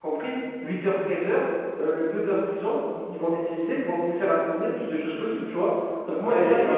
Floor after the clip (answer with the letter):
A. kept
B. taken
B